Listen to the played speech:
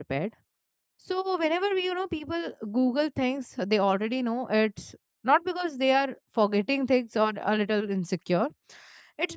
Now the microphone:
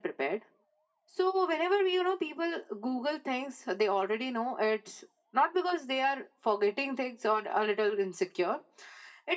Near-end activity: none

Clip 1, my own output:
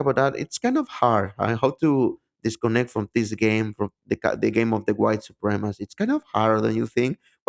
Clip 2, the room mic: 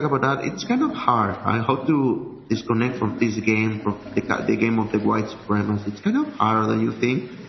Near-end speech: none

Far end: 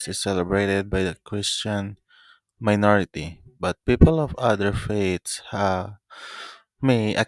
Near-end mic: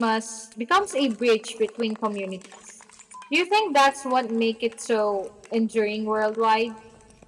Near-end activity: present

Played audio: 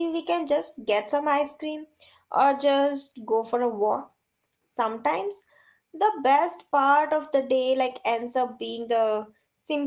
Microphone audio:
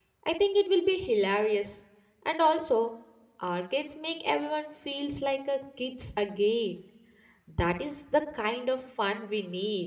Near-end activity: present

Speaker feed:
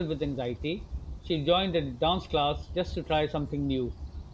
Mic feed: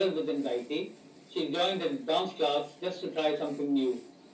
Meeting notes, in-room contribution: none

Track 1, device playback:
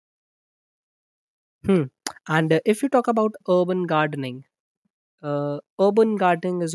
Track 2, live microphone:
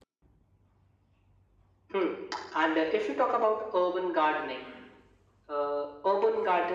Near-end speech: none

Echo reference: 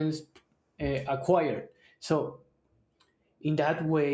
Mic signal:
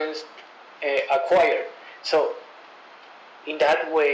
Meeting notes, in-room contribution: none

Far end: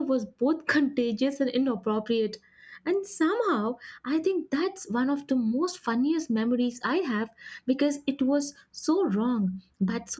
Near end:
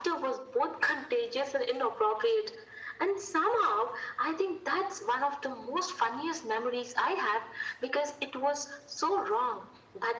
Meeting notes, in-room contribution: none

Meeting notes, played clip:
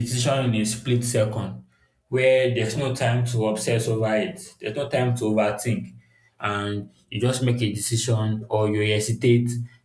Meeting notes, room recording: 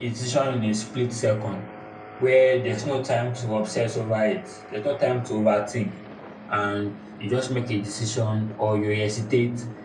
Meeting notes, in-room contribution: none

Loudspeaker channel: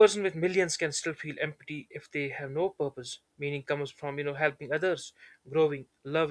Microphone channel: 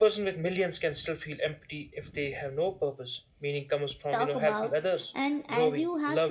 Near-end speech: present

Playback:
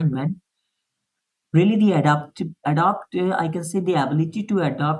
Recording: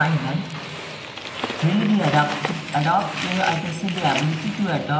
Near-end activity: none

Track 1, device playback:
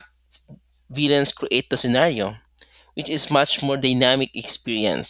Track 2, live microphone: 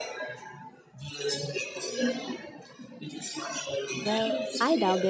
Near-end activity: present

